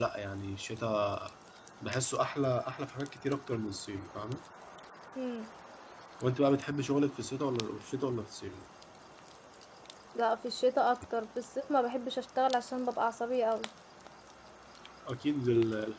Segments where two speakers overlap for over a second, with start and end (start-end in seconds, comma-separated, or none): none